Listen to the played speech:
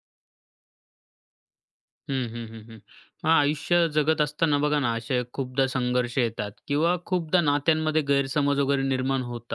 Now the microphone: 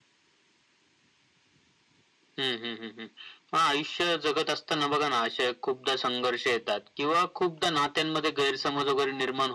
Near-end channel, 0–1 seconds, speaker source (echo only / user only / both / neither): neither